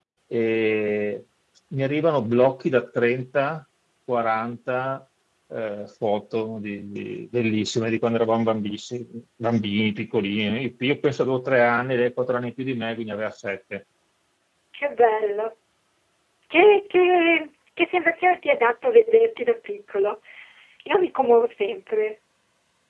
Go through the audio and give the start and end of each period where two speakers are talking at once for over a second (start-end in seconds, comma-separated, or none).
none